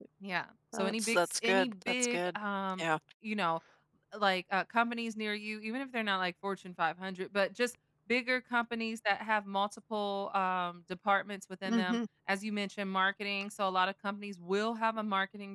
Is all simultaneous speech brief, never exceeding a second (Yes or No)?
No